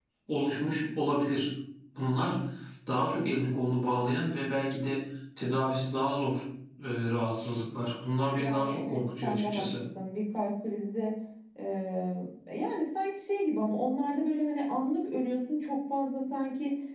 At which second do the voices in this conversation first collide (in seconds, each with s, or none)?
8.4 s